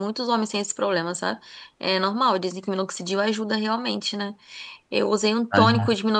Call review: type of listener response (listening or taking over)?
listening